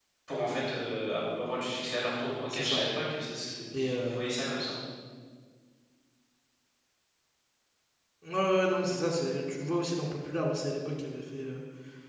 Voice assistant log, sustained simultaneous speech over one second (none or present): none